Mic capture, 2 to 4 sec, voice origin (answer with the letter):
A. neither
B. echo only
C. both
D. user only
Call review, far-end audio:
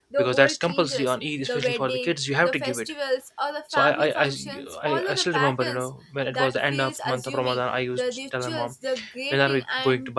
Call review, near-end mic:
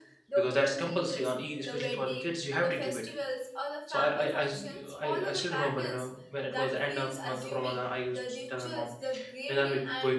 B